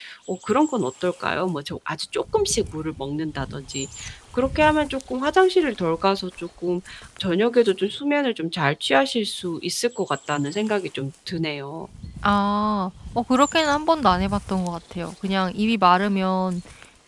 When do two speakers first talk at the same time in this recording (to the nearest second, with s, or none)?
none